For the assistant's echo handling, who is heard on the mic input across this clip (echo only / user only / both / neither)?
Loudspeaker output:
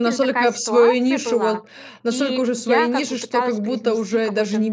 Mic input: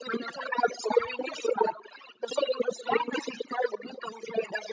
echo only